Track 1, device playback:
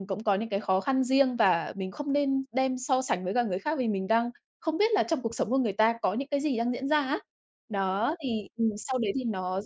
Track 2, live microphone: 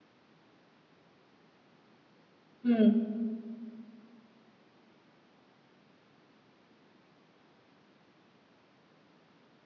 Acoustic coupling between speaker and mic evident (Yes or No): No